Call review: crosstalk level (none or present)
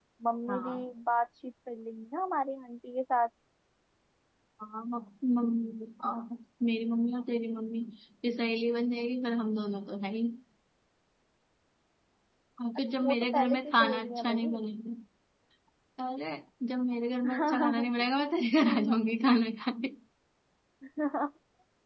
present